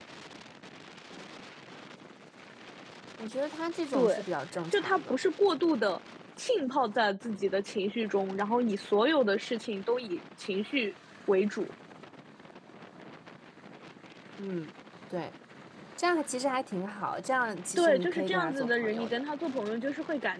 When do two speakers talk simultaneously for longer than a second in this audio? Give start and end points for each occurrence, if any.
17.8-19.2

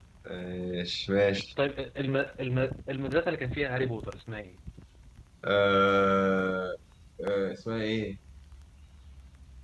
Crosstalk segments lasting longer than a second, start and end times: none

